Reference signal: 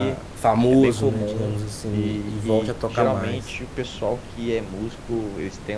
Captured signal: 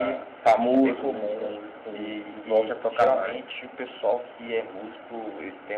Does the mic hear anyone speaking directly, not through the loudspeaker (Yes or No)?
No